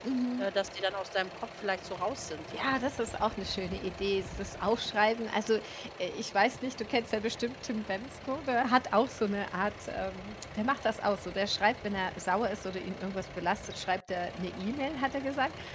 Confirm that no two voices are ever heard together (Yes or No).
Yes